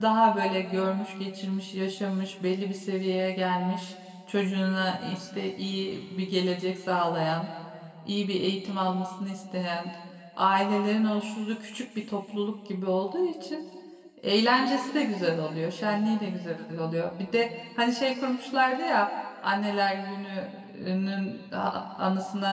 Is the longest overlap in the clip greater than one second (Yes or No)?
No